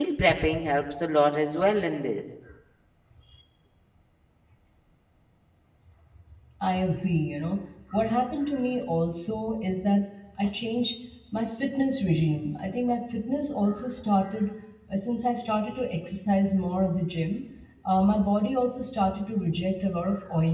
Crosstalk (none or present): none